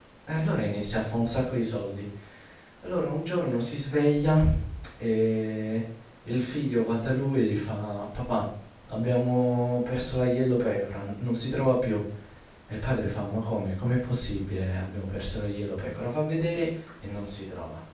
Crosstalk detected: No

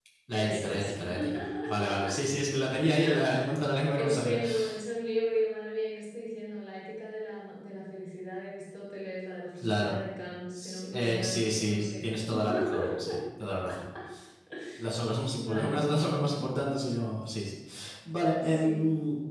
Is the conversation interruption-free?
No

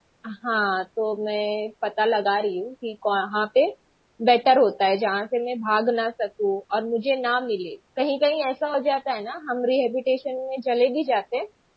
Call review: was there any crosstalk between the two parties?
No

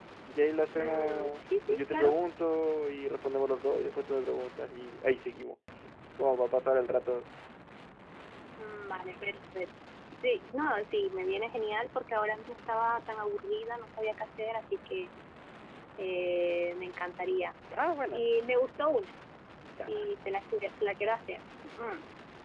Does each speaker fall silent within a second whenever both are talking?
No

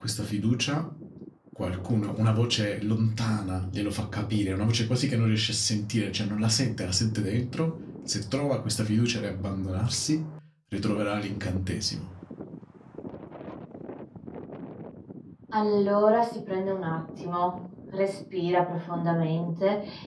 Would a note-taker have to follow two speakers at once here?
No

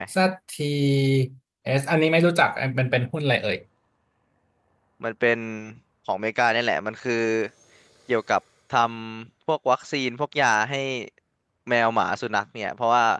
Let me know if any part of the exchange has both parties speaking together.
No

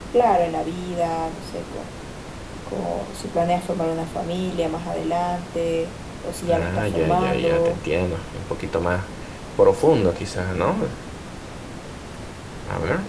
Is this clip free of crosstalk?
No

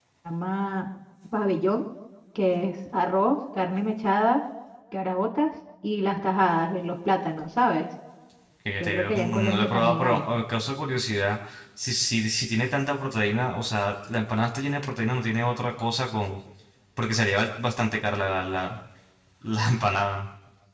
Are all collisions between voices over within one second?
No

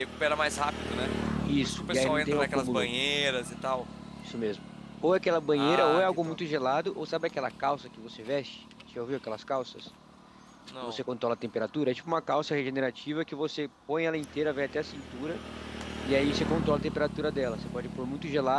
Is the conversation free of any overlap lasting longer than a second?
No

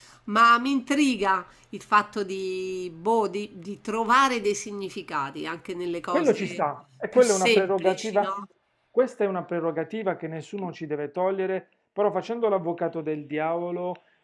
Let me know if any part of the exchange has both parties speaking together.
Yes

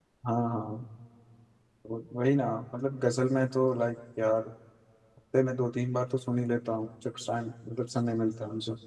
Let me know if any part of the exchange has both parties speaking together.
No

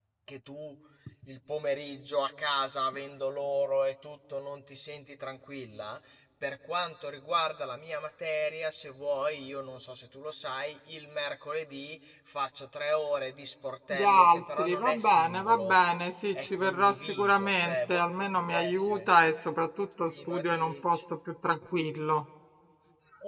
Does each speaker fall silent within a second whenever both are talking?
No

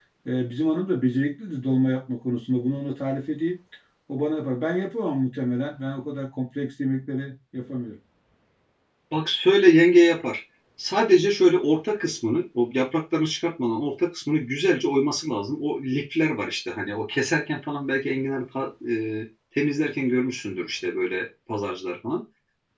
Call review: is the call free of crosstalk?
Yes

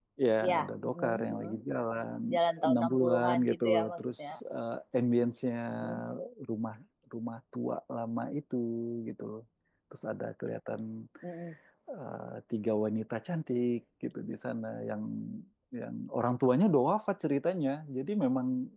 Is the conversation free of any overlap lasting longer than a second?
No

